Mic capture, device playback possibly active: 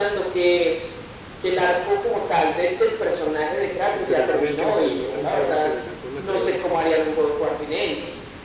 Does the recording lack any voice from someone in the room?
No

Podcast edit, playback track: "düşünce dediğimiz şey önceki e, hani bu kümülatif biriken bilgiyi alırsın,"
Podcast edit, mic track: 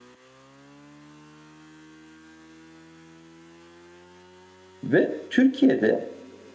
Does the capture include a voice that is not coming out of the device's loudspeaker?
Yes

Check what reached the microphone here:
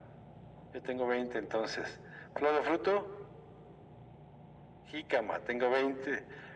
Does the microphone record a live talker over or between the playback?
No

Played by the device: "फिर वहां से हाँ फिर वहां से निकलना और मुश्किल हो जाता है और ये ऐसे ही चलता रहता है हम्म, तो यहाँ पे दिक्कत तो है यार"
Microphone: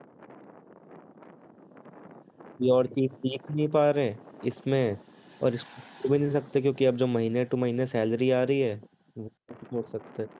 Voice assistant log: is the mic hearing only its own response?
No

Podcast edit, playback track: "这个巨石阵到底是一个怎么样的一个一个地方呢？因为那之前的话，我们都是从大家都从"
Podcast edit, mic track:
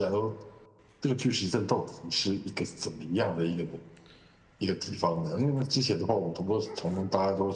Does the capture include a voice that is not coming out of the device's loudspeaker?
No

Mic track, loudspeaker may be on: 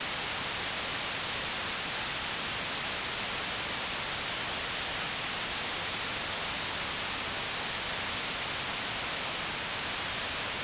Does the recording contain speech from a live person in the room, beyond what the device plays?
No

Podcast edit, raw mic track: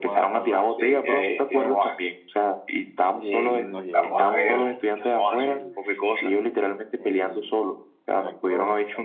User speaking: Yes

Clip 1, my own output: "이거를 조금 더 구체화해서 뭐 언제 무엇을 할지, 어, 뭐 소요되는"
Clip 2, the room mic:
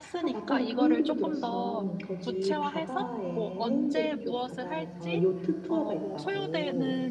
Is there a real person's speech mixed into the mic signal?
Yes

